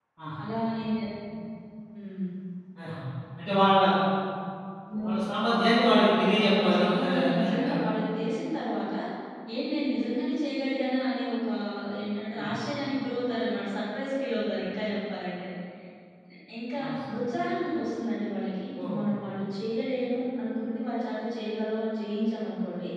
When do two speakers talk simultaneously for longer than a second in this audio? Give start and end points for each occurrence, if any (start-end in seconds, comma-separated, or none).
5.0-7.8